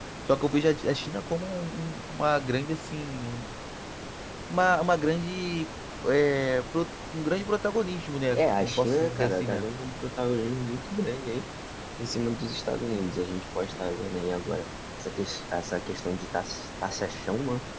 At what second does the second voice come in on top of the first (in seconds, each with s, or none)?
8.3 s